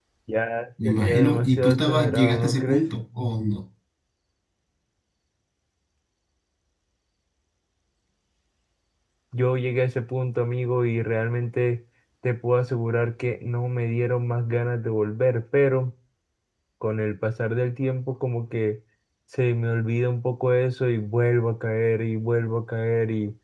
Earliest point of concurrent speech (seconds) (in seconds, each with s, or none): 0.8 s